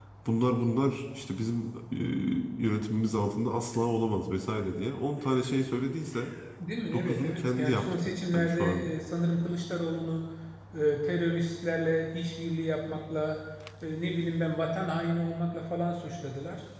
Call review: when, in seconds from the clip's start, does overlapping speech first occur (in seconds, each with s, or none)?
6.9 s